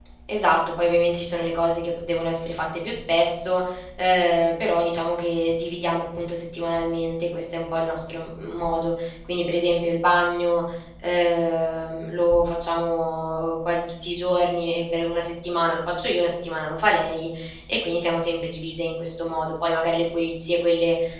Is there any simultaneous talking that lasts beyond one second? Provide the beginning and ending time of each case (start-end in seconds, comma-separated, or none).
none